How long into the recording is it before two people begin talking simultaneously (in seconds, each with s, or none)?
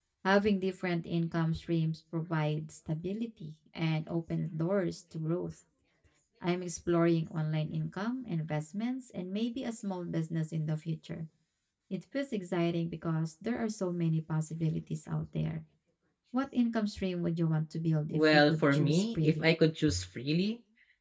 18.1 s